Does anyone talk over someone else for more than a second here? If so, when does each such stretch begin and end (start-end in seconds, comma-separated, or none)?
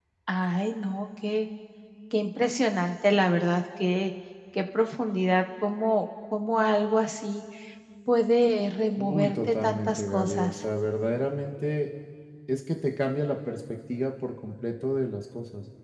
9.0-10.5